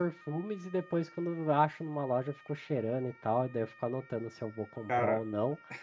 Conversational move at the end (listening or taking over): listening